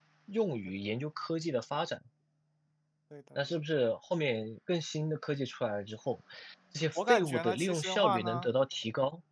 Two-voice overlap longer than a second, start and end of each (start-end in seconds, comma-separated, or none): 7.0-8.5